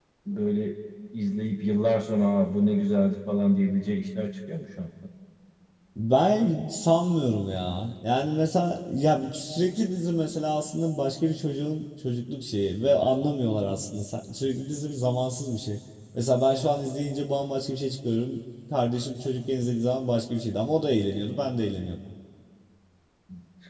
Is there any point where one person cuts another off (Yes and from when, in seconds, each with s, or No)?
No